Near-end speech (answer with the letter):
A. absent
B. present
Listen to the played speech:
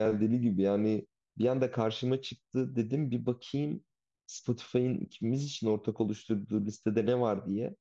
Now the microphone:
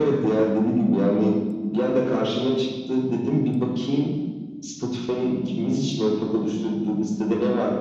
A